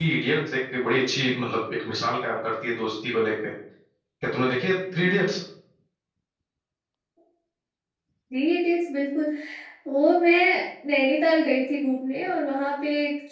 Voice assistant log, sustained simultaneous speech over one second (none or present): none